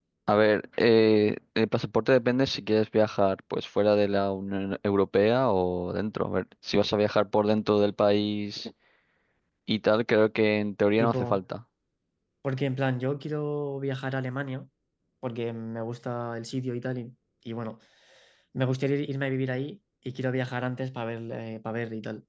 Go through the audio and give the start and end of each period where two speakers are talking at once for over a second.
none

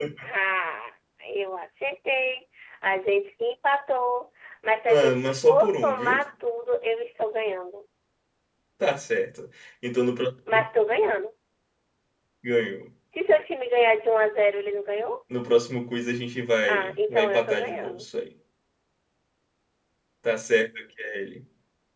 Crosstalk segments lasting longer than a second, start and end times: 4.9-6.2, 16.7-18.1

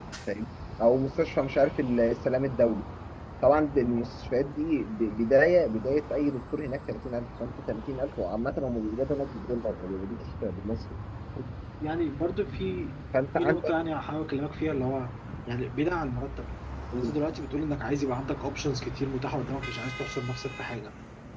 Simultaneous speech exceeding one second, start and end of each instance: none

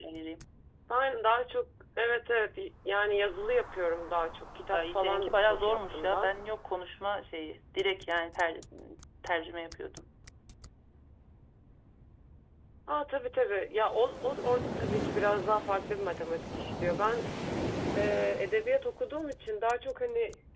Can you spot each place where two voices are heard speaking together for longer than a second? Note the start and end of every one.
4.7-6.3

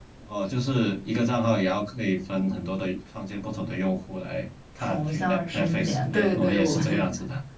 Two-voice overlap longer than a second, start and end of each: 4.8-7.1

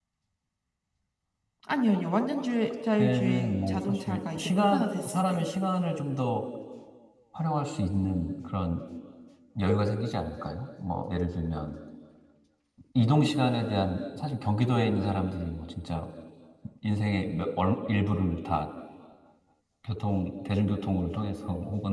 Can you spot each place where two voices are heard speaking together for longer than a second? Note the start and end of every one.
3.0-5.4

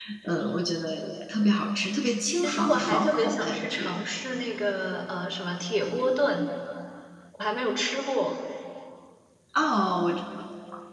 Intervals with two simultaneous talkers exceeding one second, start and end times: 2.4-4.0

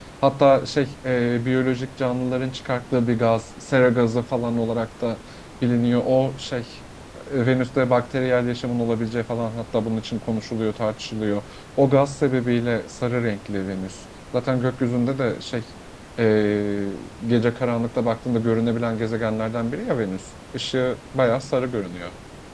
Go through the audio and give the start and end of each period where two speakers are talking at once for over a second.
none

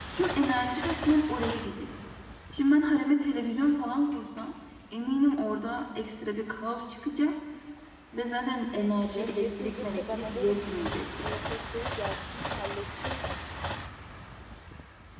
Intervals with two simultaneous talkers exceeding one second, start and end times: 9.1-11.4

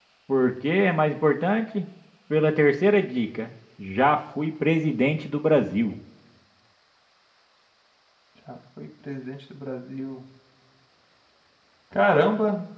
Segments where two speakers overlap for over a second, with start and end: none

